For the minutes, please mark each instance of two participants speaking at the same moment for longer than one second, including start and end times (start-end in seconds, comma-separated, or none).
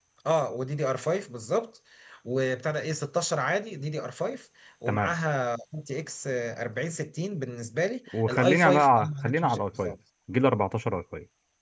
8.1-9.9